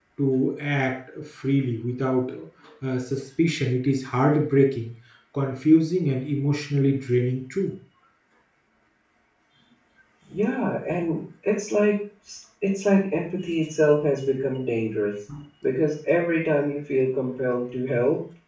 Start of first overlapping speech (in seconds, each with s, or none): none